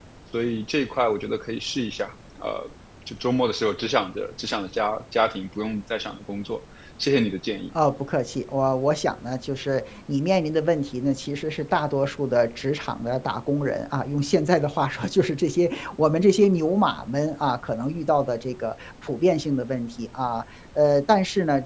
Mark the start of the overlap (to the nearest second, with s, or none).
none